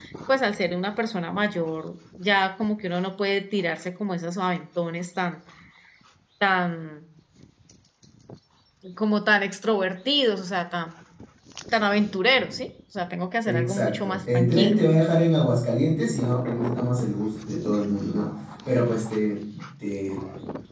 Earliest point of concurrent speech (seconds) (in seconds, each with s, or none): 13.5 s